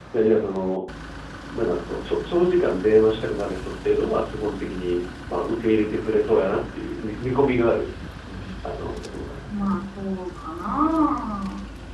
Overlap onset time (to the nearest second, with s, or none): none